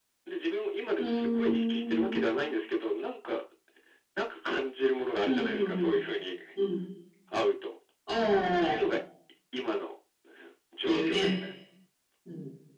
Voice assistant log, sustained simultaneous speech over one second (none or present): present